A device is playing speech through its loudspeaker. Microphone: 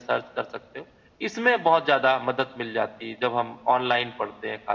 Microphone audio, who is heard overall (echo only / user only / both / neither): echo only